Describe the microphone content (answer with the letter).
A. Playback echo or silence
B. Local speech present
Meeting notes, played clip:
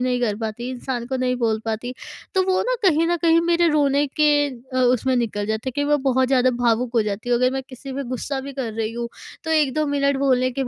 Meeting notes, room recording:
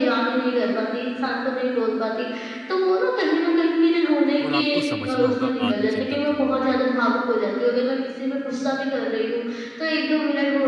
B